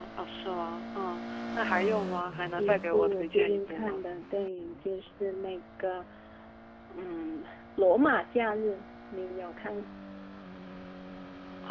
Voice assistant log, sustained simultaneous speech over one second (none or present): present